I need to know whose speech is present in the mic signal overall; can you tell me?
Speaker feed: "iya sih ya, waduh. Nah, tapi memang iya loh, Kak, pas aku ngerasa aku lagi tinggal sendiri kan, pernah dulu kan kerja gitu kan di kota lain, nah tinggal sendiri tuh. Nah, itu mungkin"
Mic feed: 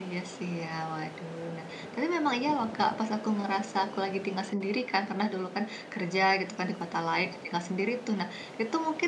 echo only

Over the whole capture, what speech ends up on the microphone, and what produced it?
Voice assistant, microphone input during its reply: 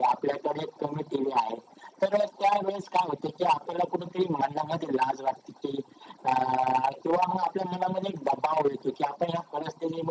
echo only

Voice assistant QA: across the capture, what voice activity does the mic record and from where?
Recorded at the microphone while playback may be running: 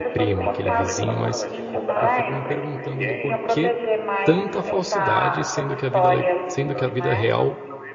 both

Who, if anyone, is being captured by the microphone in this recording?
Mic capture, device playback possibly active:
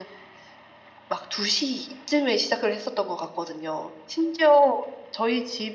echo only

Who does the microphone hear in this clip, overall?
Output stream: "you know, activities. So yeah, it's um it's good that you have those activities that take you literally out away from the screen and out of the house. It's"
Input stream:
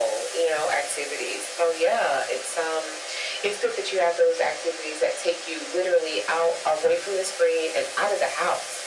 echo only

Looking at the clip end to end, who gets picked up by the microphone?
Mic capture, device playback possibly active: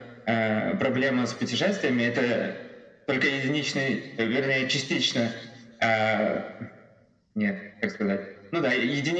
echo only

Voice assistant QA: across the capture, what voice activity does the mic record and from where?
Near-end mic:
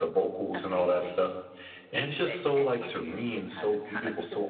both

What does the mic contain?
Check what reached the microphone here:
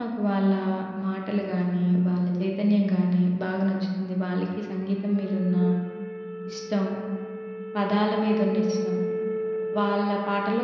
user only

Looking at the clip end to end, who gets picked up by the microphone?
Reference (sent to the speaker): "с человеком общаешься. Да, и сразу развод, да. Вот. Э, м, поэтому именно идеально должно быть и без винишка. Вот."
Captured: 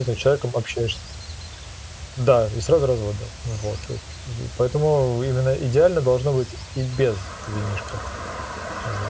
echo only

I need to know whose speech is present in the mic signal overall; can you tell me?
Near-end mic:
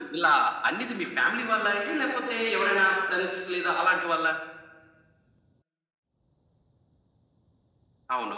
echo only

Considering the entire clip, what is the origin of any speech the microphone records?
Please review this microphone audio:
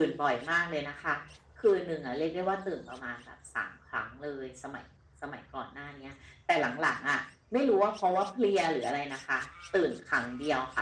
echo only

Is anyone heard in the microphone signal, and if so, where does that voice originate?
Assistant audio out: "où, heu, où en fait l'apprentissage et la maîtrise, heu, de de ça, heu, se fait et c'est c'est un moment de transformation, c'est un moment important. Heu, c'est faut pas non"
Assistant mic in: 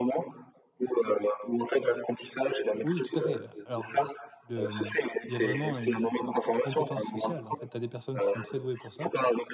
both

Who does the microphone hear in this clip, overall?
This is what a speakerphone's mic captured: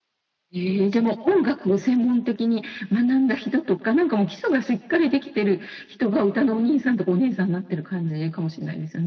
echo only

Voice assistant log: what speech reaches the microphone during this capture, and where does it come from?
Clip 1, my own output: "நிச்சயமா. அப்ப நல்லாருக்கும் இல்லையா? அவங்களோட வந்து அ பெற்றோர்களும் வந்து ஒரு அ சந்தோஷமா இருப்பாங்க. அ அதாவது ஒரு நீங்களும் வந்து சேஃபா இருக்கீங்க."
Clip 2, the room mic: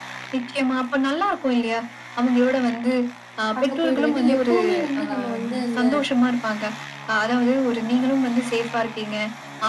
both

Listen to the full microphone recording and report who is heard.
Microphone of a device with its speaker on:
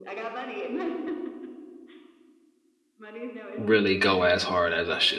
both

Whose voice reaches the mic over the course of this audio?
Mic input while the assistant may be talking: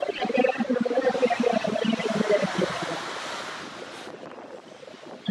echo only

